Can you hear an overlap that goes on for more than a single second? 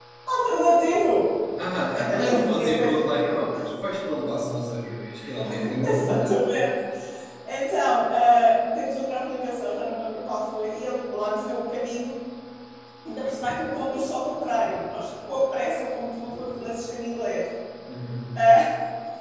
Yes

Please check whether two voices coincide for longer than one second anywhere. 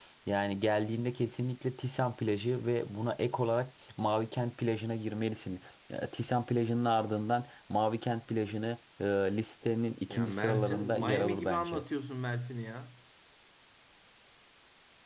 Yes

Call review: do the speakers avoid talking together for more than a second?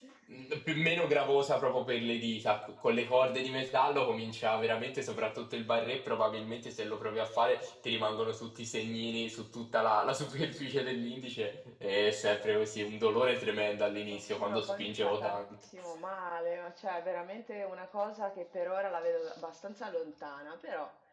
No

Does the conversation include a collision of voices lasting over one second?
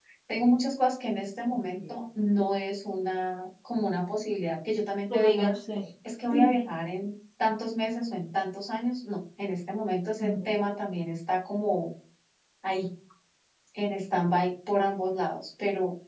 No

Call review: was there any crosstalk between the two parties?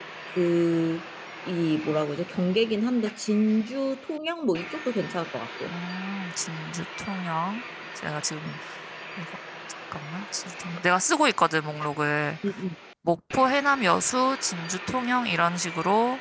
No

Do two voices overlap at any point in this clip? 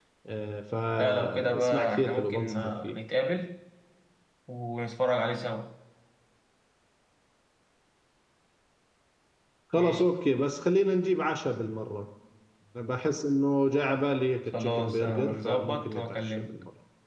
Yes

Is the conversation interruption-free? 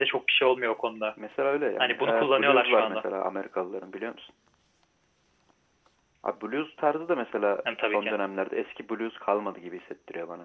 No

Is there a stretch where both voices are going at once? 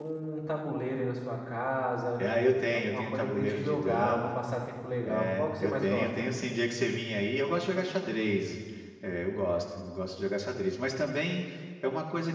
Yes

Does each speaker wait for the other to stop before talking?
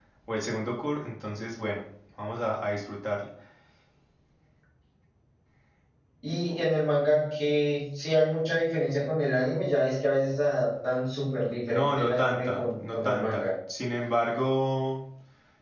No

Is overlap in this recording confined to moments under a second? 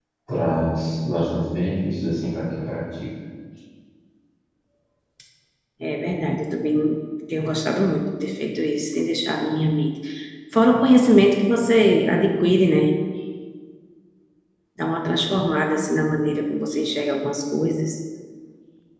Yes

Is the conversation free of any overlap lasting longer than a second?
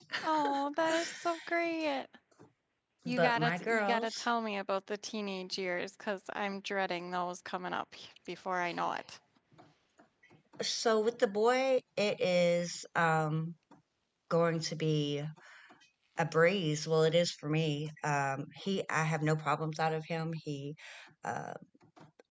No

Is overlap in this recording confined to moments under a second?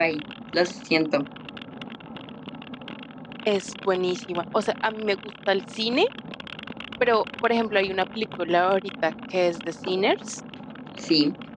Yes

